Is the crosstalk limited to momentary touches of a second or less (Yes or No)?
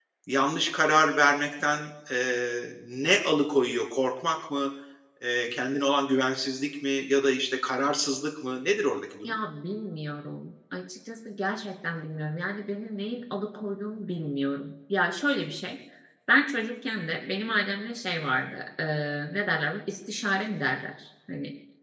Yes